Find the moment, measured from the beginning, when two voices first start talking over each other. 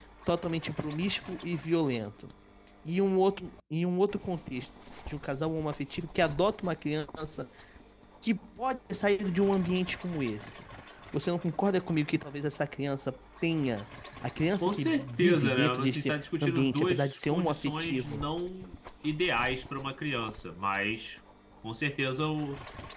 14.6 s

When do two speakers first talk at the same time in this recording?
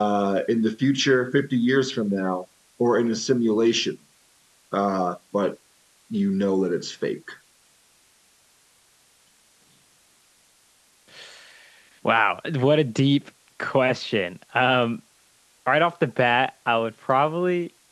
none

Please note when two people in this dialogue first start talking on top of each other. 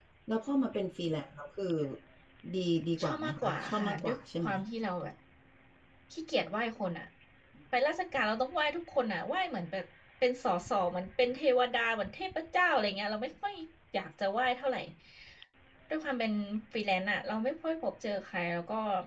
3.0 s

